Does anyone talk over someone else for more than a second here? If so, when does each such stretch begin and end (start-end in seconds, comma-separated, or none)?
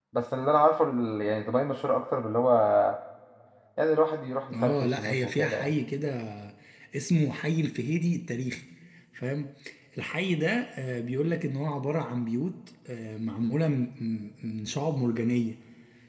4.5-5.7